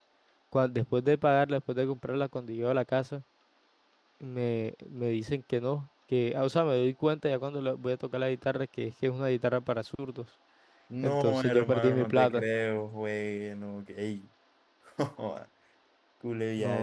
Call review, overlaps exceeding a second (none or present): present